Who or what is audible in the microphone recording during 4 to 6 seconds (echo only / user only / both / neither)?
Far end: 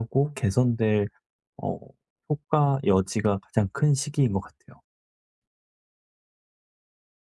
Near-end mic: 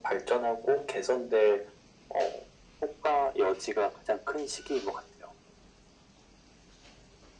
echo only